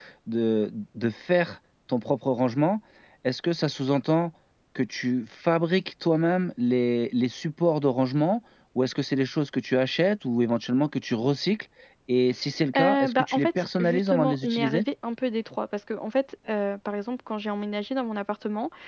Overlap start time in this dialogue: 13 s

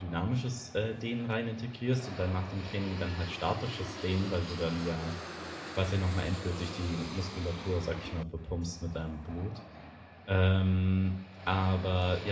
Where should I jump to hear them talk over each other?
none

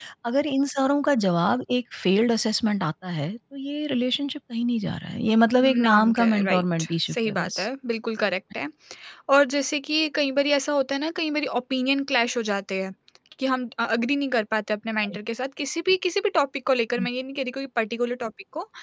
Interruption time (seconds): 6 s

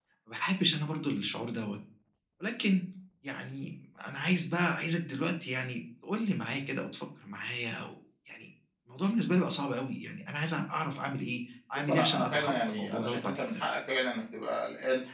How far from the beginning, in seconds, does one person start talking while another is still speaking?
12 s

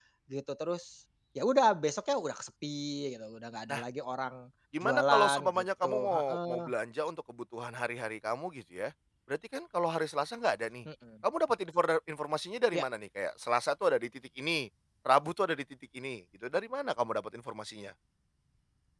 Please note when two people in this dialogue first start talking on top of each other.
5 s

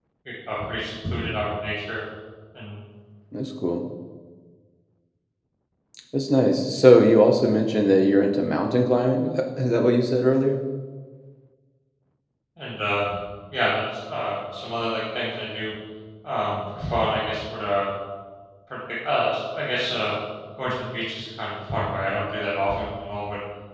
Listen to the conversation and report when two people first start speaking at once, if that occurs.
none

